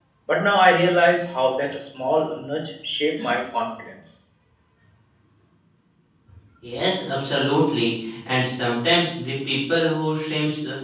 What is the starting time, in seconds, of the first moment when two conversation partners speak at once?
none

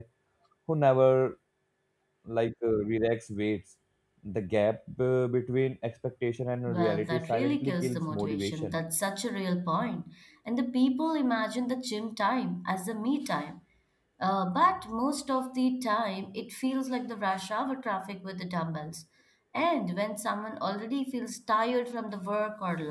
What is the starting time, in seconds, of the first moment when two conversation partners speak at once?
7 s

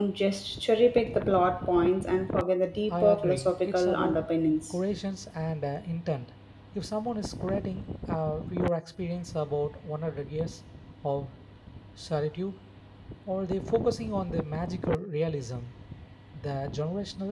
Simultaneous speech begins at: 3 s

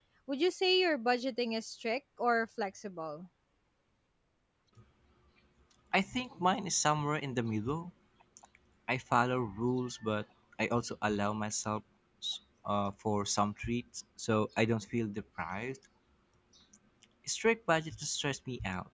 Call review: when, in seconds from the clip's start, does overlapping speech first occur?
none

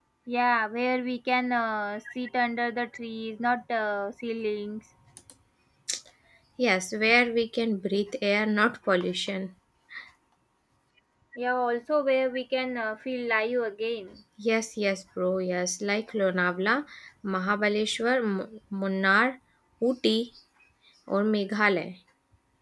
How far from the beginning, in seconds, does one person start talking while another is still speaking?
none

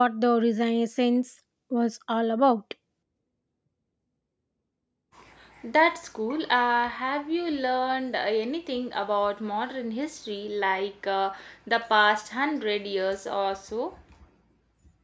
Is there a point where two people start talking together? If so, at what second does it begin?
none

